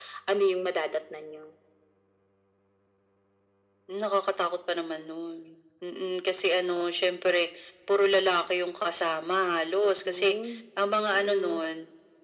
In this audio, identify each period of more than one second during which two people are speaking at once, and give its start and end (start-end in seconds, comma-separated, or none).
none